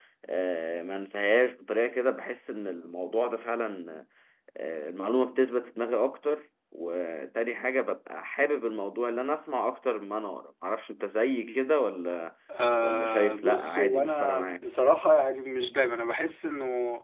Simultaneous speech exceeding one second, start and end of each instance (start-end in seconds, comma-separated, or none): 12.8-14.6